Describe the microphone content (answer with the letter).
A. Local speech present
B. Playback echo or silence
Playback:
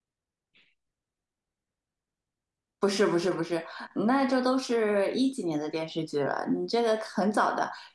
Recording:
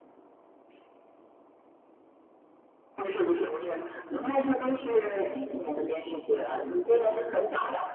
B